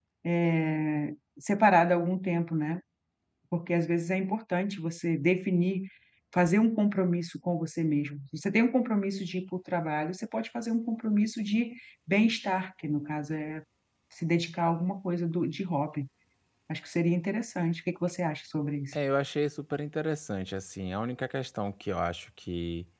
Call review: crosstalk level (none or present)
none